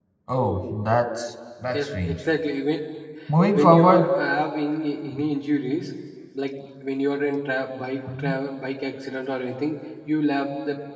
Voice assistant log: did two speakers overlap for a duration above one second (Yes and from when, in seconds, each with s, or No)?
No